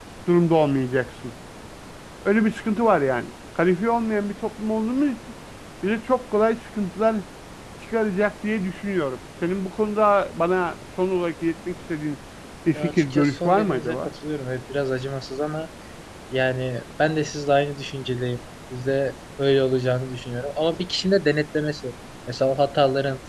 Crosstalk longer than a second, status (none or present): present